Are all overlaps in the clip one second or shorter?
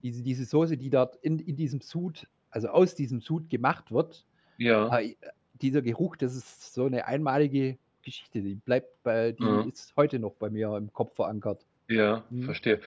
Yes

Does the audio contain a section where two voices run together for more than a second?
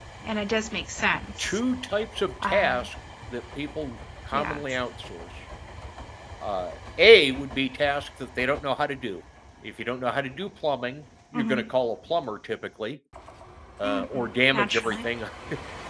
Yes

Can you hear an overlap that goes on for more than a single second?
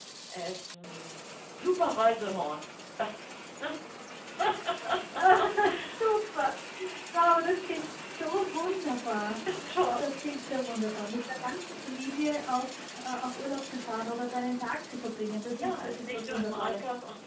Yes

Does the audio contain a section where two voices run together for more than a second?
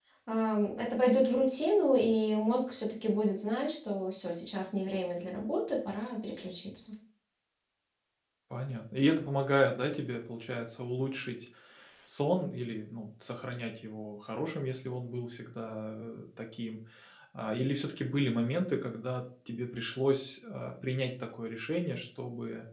No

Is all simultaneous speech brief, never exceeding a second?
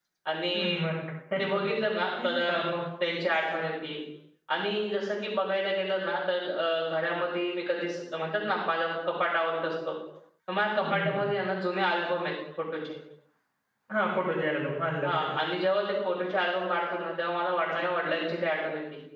Yes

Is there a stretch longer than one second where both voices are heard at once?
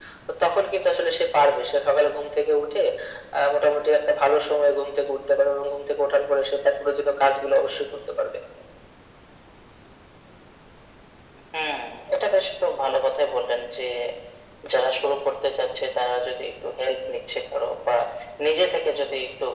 No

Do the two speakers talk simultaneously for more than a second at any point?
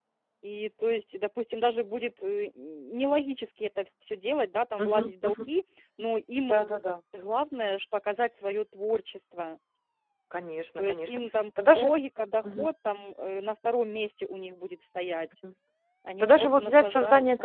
Yes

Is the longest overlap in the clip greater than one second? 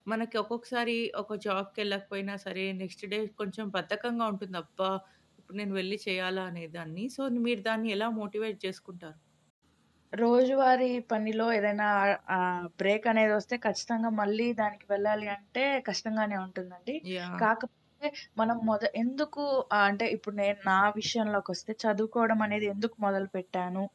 No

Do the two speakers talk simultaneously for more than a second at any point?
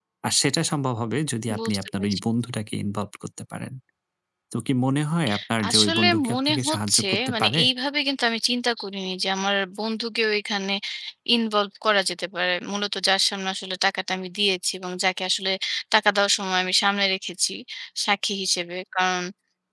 Yes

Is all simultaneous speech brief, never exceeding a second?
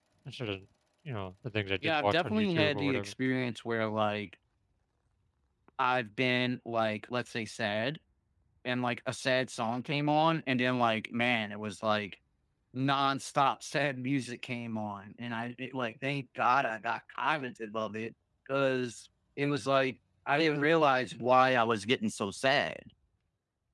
No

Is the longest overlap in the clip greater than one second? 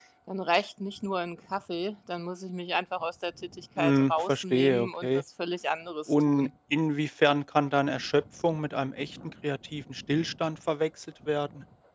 Yes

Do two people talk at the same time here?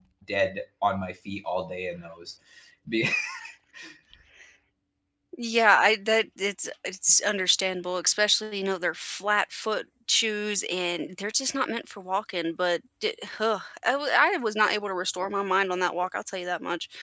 No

